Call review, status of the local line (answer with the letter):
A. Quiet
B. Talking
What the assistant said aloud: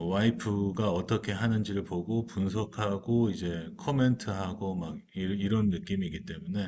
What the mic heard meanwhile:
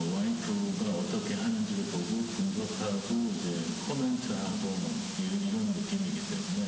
A